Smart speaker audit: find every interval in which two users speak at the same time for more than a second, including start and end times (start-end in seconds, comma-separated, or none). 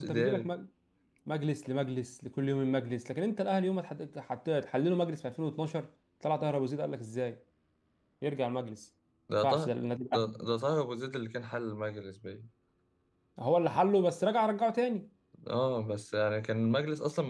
none